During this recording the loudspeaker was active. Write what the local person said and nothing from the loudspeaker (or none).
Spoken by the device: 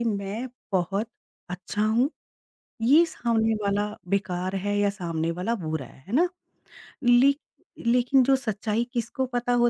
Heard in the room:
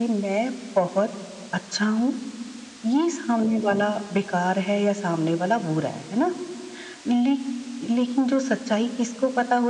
none